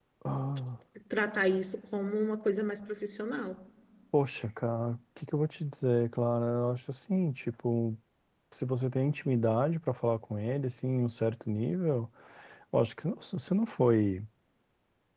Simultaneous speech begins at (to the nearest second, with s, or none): none